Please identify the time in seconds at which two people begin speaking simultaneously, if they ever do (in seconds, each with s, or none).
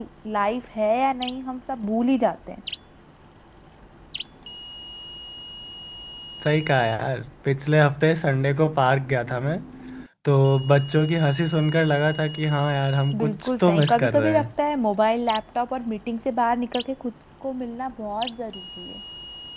13.1 s